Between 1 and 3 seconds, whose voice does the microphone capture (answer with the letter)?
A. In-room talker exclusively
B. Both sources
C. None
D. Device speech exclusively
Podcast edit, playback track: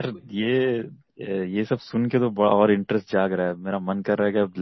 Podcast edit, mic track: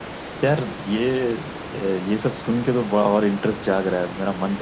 D